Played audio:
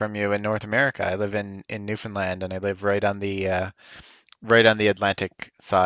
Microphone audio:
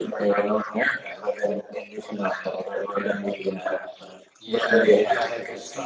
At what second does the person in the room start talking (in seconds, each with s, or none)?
4.4 s